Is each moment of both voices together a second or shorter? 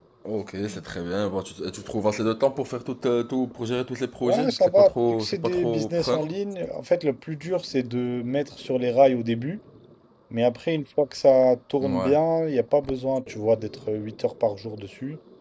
No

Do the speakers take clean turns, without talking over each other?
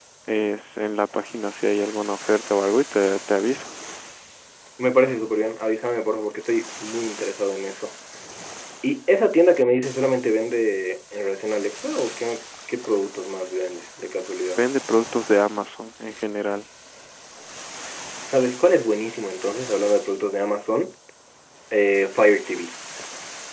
Yes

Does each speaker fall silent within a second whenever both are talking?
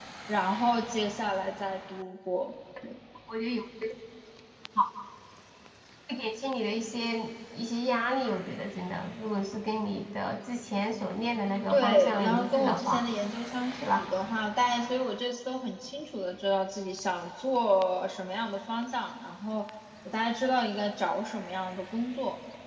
No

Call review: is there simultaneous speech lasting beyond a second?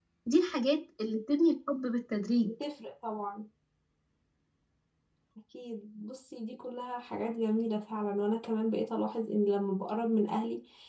No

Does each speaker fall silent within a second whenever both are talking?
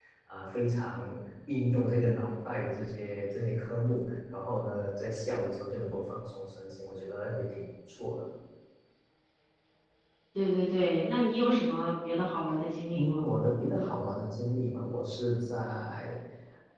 Yes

